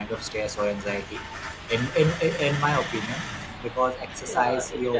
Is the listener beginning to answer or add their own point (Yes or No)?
Yes